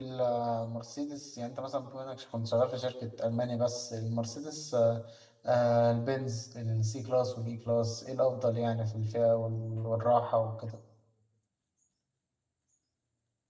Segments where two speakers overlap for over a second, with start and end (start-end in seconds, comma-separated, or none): none